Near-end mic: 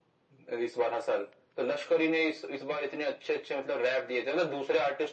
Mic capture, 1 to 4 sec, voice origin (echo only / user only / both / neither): echo only